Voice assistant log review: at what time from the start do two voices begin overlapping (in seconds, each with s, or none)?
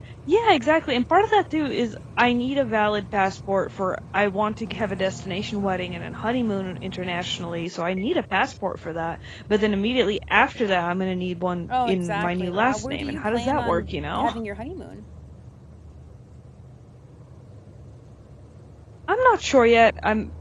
11.7 s